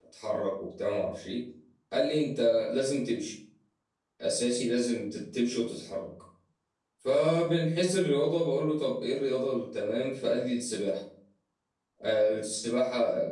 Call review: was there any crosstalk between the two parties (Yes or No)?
No